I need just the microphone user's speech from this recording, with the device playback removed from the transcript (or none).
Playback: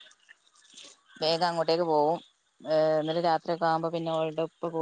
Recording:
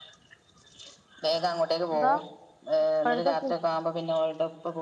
എന്താ? ഇപ്പോഴത്തെ കു